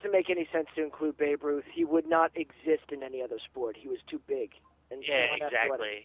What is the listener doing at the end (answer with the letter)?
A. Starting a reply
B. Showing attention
A